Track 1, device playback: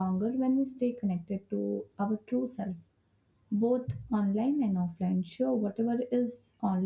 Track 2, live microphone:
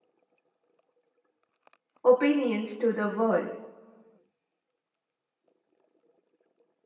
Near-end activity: present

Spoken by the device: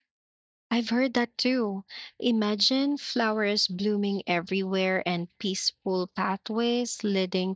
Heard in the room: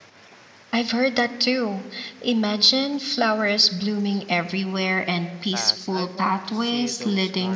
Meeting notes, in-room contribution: present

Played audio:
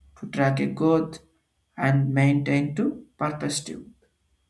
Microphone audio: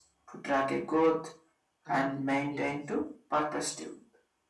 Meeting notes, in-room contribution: present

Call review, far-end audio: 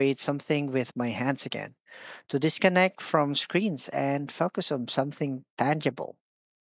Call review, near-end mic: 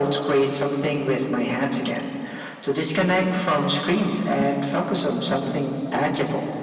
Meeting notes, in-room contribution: none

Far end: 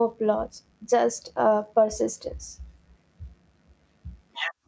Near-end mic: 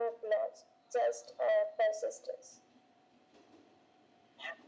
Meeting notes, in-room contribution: none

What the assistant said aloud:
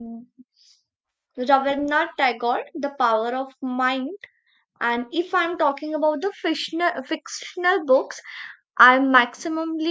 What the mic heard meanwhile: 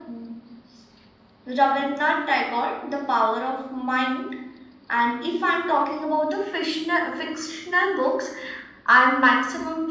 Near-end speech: none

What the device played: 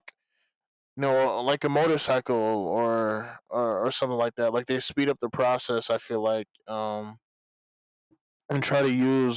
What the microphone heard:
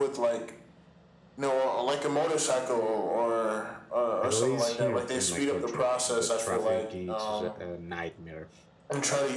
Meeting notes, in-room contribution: present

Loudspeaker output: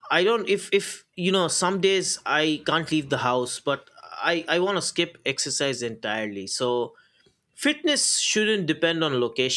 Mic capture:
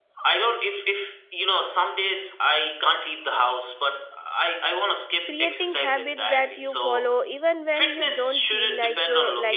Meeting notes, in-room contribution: present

